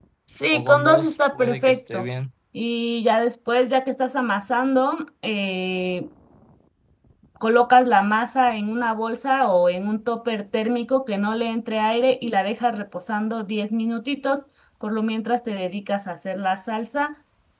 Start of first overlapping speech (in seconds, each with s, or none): 0.5 s